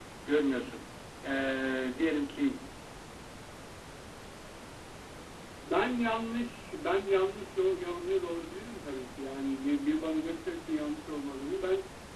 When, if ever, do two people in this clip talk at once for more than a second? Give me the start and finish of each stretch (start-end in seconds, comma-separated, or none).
none